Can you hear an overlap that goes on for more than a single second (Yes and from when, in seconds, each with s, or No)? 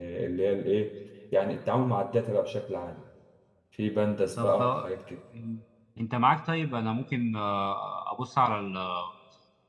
No